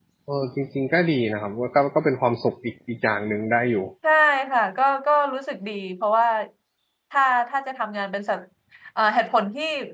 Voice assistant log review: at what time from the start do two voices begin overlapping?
none

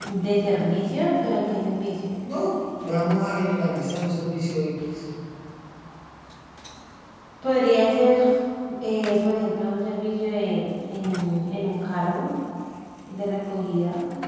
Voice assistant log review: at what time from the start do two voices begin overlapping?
none

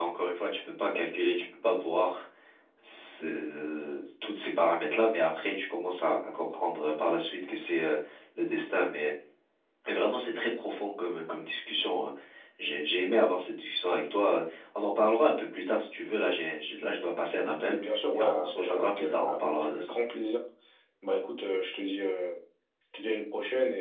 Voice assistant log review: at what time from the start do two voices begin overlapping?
18.2 s

